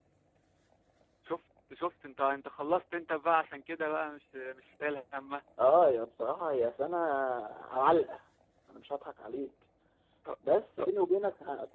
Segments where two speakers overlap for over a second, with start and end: none

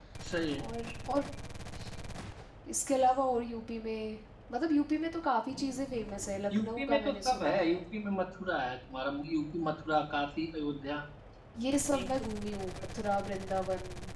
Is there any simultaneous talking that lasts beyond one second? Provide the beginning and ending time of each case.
6.5-7.8

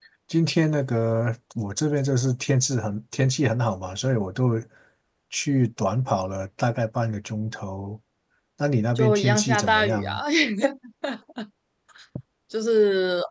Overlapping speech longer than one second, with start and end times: 9.0-10.2

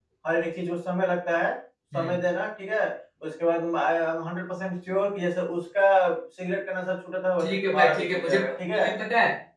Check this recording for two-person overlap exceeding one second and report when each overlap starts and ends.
7.4-8.8

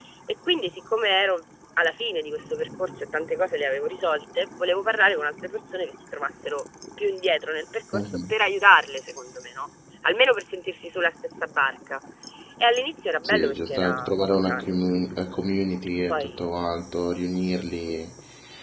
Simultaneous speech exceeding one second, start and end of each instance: 13.2-14.8

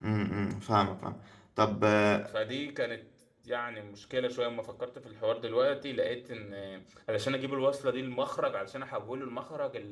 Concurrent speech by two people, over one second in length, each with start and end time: none

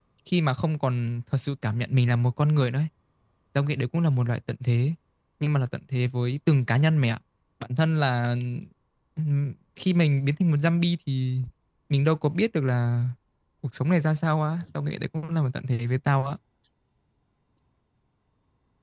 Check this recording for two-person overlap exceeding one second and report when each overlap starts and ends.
none

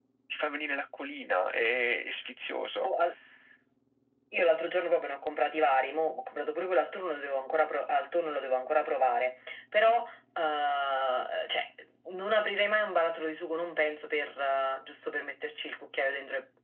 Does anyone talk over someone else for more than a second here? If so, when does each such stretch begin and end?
none

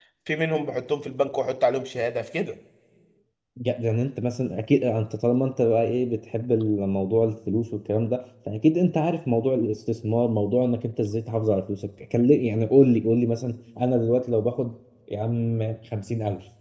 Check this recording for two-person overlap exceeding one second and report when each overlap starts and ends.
none

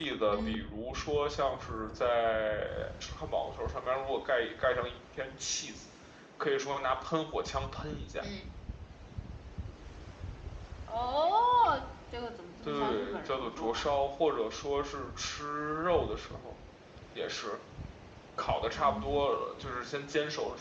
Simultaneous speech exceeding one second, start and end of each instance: 12.6-13.9

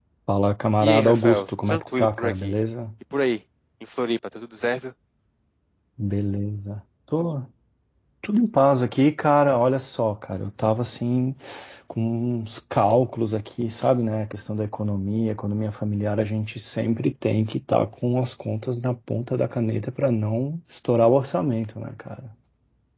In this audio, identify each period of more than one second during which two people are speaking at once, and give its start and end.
0.8-2.5

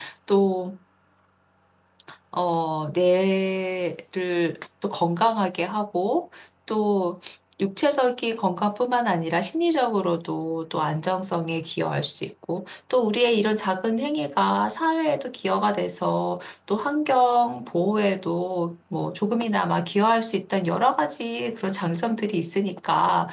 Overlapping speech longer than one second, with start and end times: none

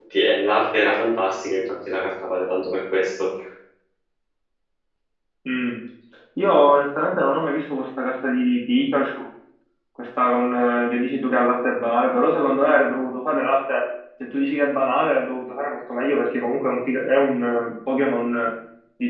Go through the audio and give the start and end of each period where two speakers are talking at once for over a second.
none

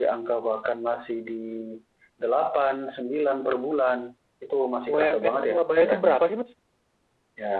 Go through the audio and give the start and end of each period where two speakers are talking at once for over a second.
4.9-6.2

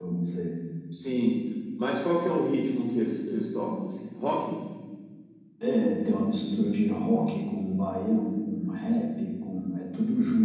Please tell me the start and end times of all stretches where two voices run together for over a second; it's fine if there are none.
none

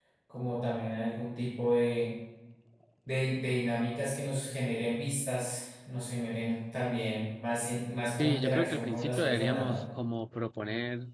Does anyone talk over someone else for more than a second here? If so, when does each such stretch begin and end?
8.2-9.8

